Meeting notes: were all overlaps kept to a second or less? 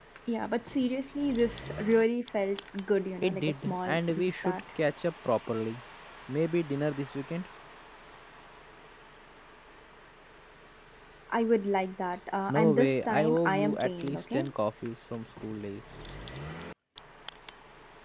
No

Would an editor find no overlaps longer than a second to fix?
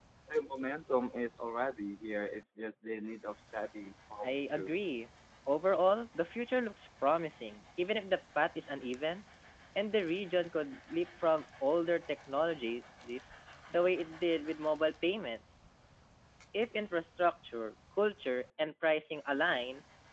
Yes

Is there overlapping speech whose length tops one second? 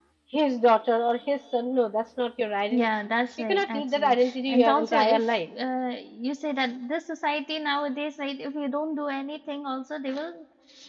Yes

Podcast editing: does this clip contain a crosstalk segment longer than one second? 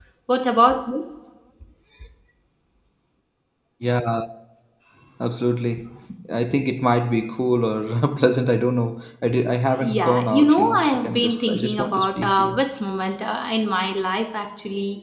Yes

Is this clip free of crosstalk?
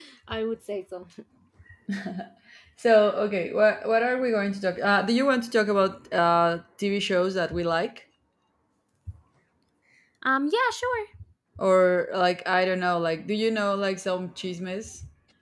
Yes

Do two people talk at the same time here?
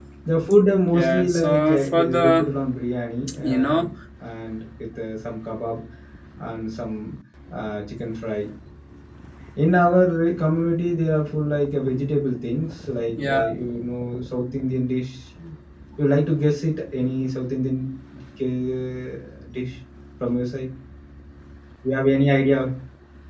Yes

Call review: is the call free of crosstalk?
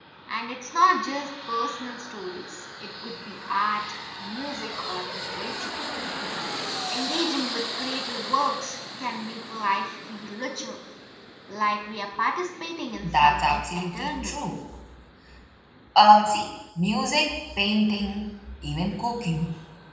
No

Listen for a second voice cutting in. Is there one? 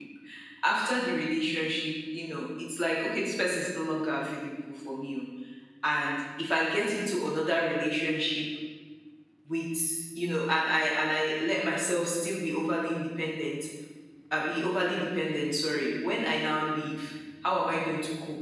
No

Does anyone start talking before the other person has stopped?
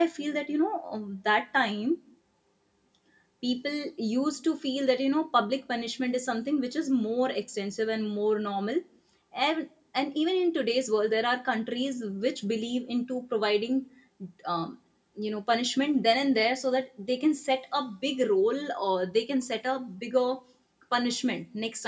No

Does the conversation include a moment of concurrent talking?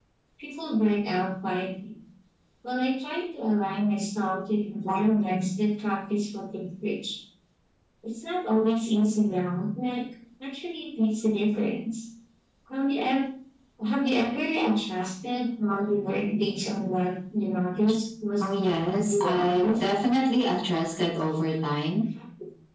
Yes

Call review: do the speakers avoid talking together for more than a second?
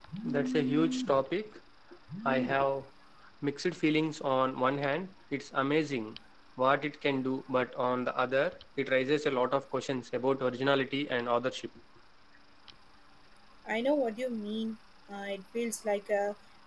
Yes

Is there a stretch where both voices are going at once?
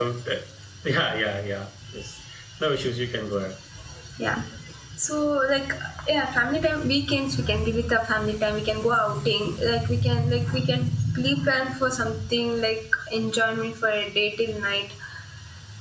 No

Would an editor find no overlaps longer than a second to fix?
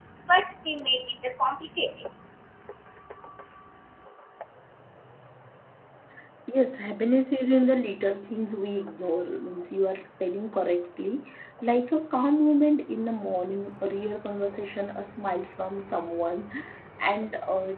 Yes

